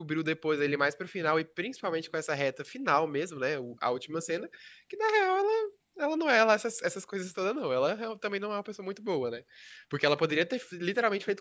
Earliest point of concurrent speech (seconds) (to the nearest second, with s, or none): none